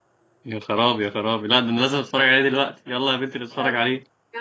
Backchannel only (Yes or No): No